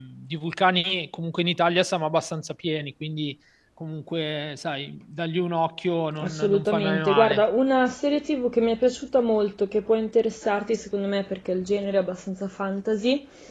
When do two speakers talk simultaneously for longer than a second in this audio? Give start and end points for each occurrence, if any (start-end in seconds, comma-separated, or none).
6.2-7.4